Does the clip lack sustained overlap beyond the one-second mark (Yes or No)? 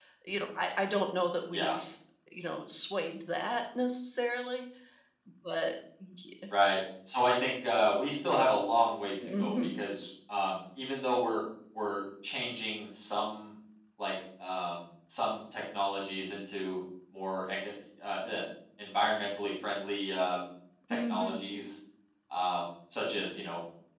Yes